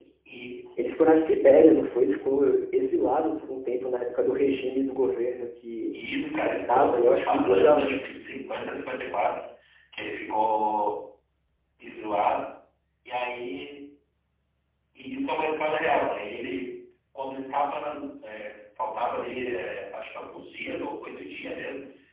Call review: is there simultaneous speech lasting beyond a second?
Yes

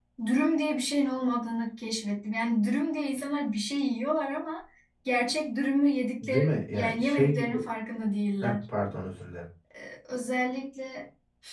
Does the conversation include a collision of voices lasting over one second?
Yes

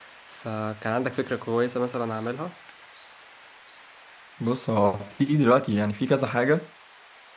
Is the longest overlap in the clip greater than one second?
No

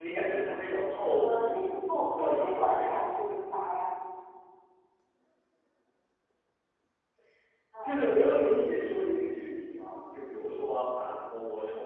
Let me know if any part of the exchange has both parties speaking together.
Yes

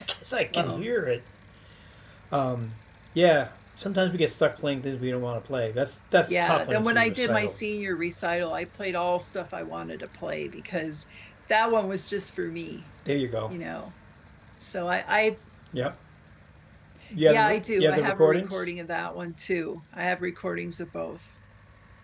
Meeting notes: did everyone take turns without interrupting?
No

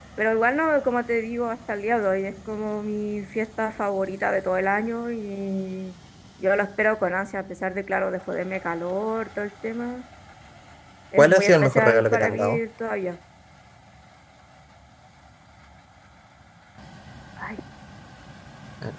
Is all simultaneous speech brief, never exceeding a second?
No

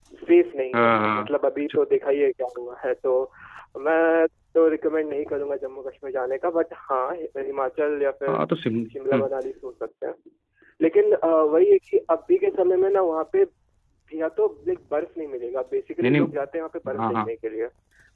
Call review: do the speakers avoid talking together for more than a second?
Yes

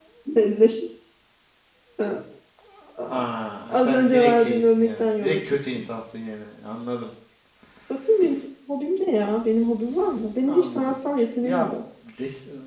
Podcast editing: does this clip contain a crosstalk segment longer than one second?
Yes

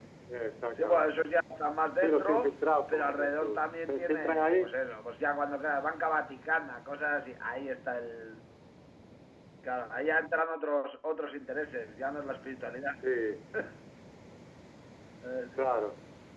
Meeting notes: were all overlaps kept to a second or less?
No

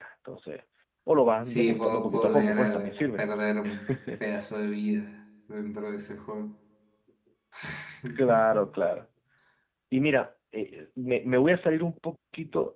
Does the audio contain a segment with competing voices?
Yes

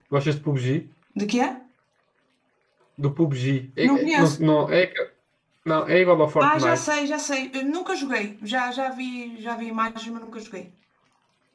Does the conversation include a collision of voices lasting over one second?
No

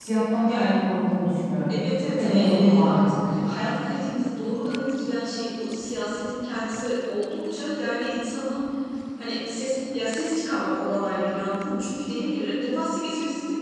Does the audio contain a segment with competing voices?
Yes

